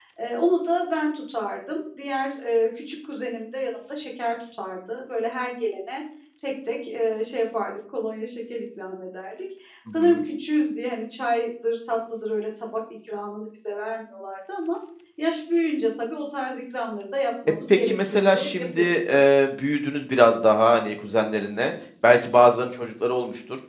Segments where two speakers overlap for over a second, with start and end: 17.7-19.1

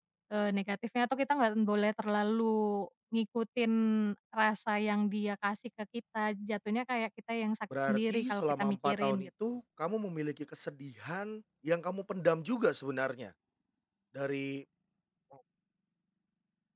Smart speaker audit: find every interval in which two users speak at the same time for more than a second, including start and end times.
7.9-9.3

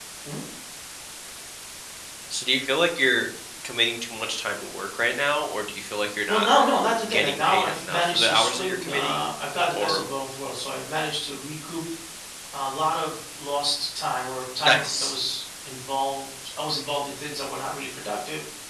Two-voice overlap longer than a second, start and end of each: 7.1-9.3

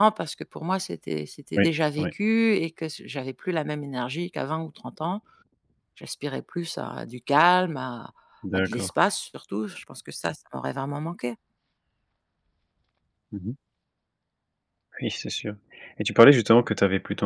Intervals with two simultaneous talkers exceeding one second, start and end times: none

